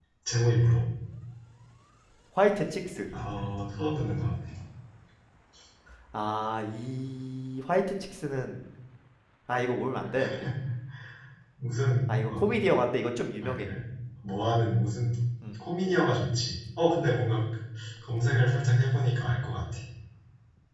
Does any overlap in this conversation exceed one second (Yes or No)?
No